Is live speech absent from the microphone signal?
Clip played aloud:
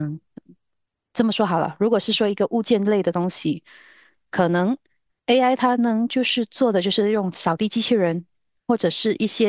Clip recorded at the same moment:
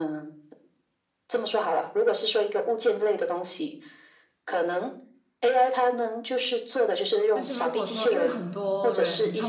No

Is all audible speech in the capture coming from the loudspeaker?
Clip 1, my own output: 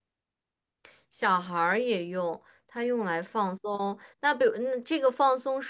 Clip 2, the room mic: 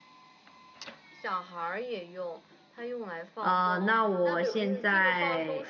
No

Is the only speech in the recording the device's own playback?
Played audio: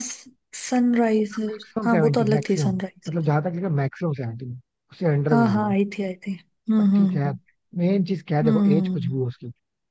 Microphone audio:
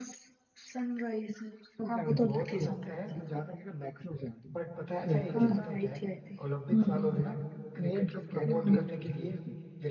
No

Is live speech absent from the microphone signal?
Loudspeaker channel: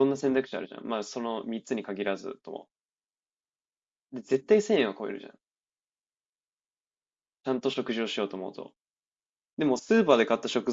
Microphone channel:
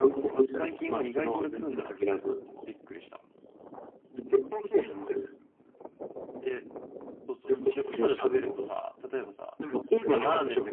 No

